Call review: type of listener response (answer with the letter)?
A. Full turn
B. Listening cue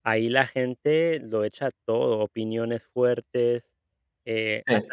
B